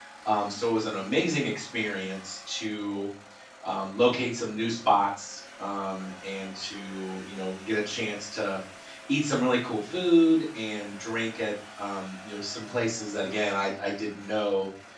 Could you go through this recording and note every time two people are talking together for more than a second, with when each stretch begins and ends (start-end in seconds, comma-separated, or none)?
none